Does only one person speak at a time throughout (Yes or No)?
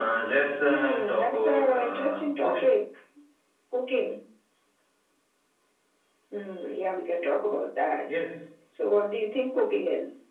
No